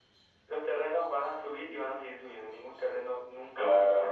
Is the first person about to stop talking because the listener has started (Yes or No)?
Yes